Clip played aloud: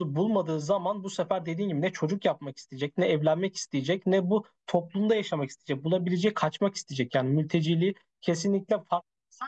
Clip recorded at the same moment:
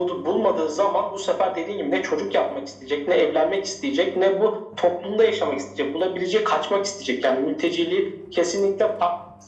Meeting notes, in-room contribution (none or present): none